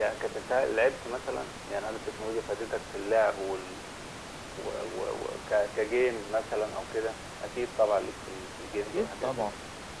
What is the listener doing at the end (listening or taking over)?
taking over